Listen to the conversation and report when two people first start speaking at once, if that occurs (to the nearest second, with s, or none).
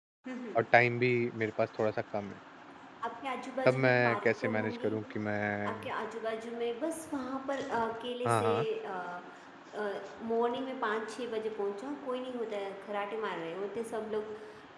4 s